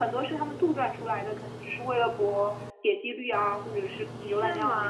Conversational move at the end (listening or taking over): taking over